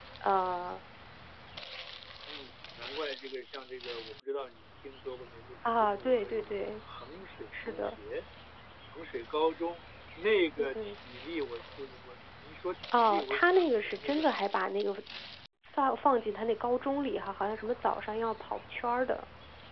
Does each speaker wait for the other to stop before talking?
No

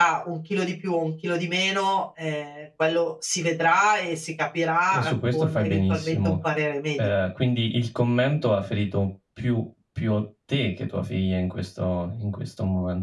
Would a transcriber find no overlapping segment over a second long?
No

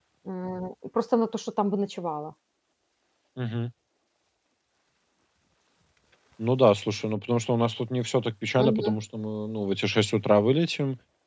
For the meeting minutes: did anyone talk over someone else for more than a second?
No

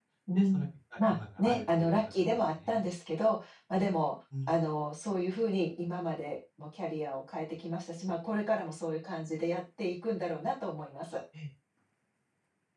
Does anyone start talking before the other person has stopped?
Yes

